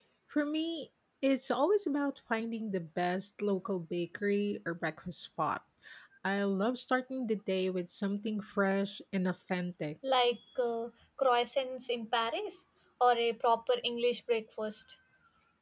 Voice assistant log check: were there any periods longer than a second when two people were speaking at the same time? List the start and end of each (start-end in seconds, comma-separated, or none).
none